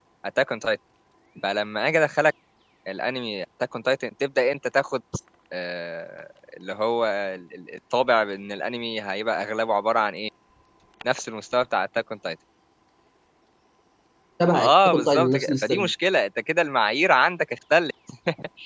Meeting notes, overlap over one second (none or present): present